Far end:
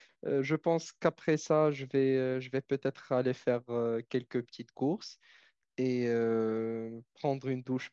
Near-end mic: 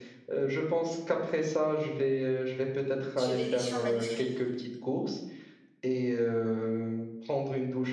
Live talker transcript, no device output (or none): Je fais de l'édition de manuscrits.